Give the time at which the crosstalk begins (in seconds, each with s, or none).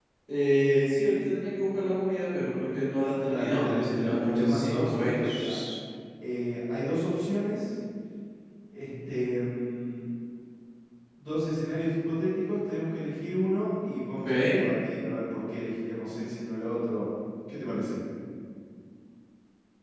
3.3 s